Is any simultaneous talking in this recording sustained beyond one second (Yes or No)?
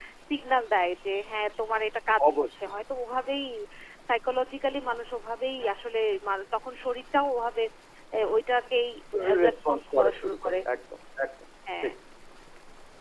Yes